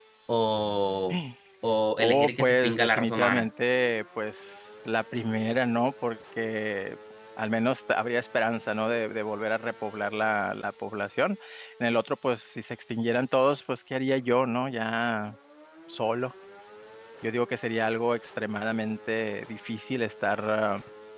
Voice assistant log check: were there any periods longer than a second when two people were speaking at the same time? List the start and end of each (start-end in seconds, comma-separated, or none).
2.0-3.5